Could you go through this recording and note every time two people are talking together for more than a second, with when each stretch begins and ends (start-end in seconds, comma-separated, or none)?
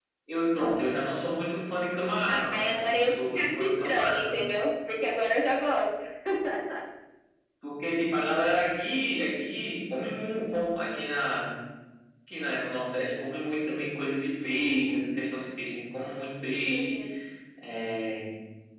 2.5-4.2